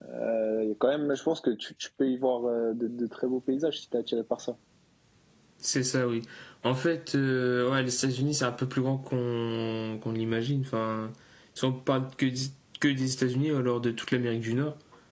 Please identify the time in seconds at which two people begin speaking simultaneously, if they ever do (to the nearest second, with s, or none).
none